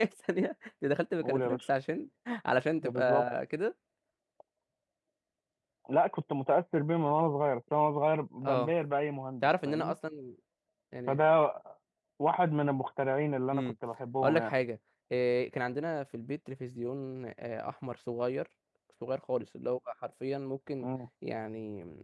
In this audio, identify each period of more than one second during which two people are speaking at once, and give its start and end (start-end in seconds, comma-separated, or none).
none